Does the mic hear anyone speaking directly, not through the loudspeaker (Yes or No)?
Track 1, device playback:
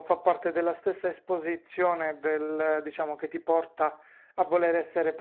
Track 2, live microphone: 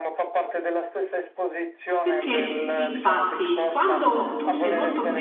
Yes